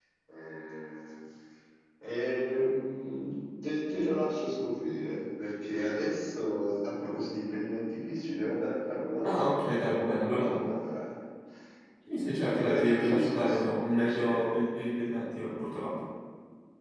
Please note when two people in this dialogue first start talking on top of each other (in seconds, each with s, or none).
9.2 s